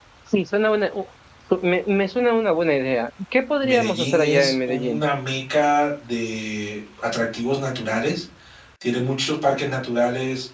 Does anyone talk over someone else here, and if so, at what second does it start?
3.6 s

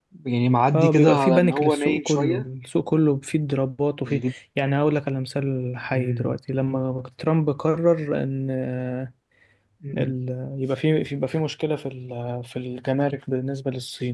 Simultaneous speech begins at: 0.7 s

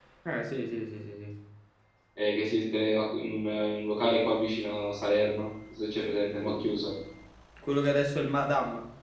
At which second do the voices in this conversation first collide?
none

